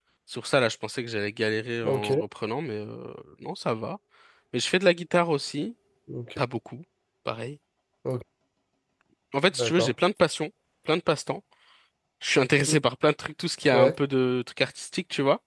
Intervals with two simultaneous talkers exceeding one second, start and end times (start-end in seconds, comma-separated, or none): none